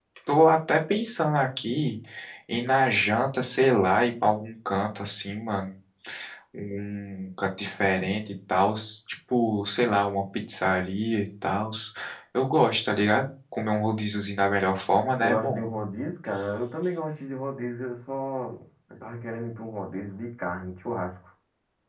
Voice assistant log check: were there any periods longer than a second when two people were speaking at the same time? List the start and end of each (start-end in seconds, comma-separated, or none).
none